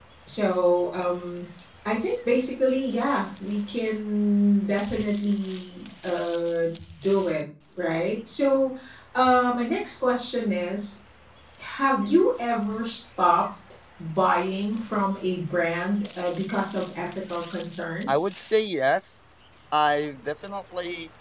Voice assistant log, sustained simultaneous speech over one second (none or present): none